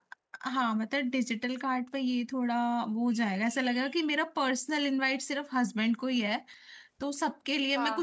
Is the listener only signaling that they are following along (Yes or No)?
Yes